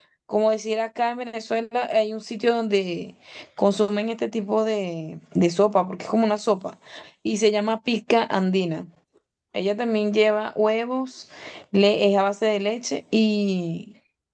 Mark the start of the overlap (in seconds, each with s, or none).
none